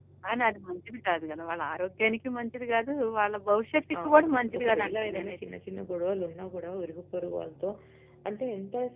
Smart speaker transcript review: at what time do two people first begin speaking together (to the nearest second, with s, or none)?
4 s